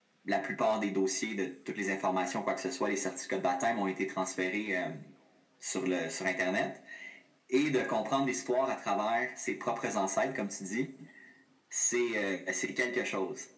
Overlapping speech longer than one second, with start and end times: none

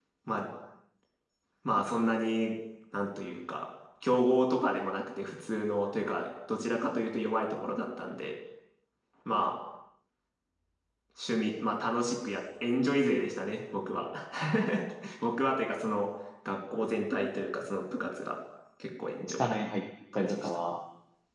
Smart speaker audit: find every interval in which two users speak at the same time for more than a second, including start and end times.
none

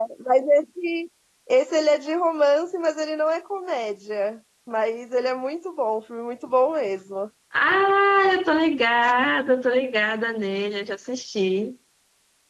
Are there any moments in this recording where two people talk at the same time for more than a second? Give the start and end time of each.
none

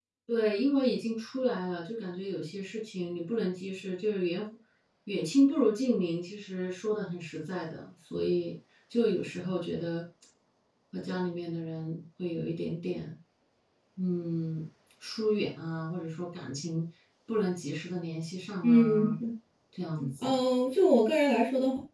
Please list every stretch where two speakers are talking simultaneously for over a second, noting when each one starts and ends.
none

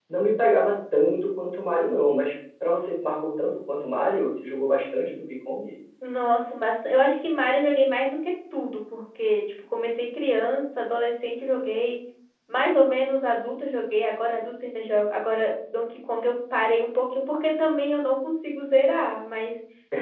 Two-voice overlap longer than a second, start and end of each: none

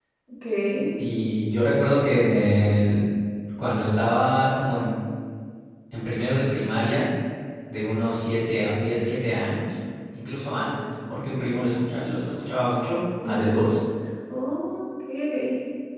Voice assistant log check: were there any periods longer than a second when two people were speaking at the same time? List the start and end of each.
none

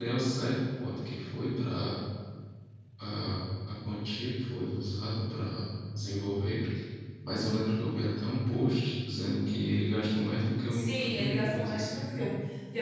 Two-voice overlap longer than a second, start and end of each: 10.7-12.3

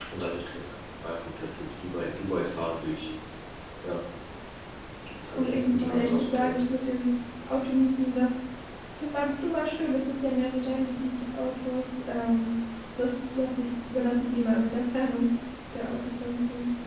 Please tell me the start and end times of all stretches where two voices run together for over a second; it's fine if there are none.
5.4-6.6

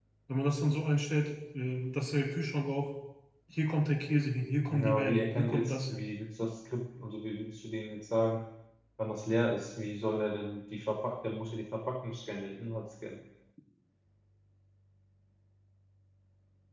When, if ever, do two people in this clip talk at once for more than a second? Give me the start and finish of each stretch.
4.7-6.1

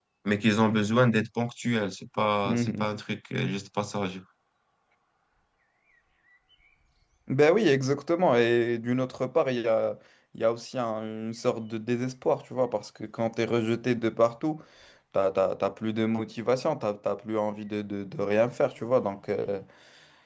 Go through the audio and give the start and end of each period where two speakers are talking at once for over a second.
none

